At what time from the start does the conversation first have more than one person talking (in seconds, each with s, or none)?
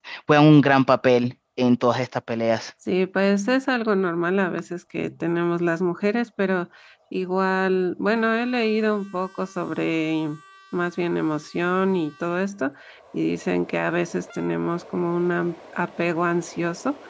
none